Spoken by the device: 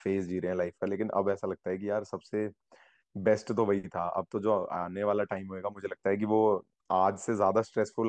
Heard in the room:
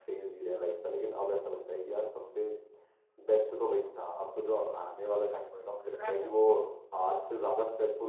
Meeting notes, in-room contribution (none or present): present